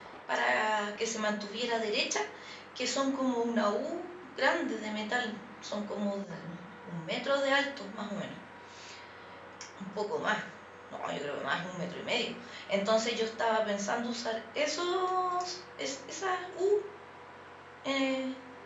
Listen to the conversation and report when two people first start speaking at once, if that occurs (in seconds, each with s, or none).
none